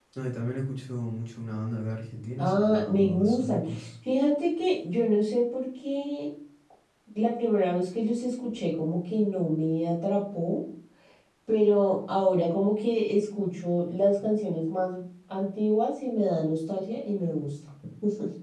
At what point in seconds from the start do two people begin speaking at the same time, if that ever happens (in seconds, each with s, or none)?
2.4 s